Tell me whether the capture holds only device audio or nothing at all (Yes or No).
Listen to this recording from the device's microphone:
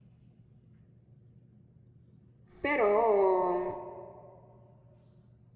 No